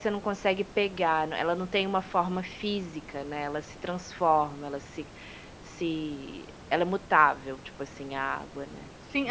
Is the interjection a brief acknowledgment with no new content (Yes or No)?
No